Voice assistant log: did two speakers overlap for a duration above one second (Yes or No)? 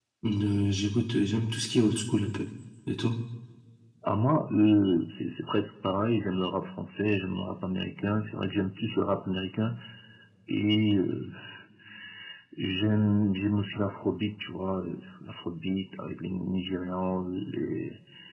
No